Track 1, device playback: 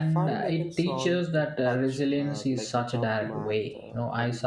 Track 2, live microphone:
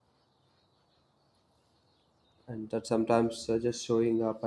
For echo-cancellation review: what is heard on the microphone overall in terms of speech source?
user only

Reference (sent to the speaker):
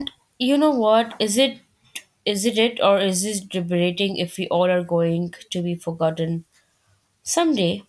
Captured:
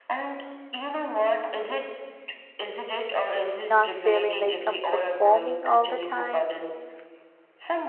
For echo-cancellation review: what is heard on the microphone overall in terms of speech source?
both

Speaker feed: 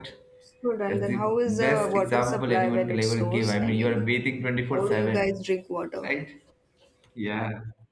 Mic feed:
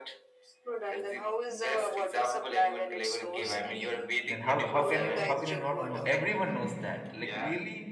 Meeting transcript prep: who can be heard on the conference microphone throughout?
both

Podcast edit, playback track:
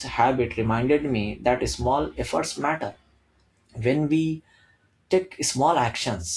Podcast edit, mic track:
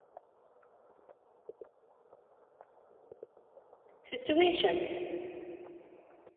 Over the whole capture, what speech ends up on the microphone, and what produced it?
user only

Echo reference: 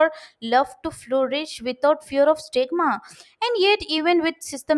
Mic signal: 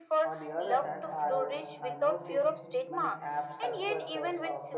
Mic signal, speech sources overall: both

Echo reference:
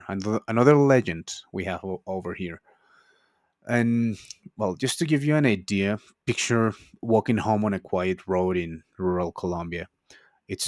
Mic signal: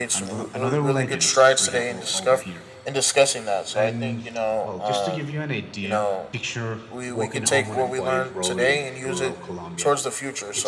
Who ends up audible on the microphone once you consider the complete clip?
both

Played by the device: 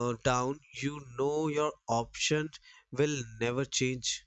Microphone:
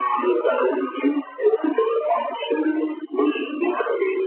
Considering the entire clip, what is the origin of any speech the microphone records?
echo only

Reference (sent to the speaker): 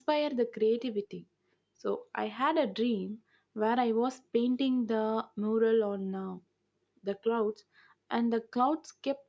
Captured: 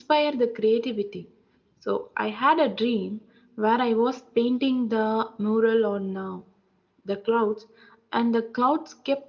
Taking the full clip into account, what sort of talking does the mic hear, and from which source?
echo only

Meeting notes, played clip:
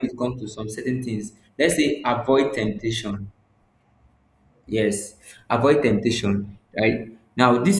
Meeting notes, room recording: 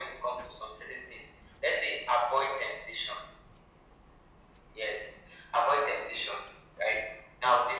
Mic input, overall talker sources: echo only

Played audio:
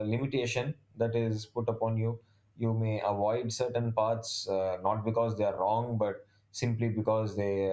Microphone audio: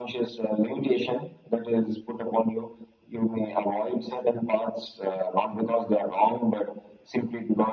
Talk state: echo only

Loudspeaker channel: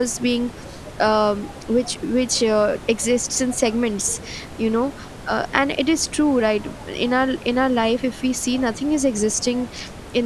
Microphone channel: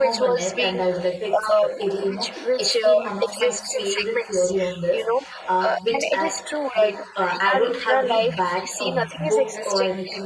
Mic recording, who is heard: both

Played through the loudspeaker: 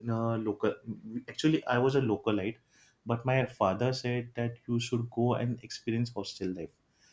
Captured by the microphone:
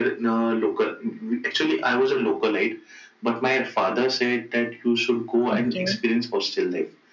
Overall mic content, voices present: both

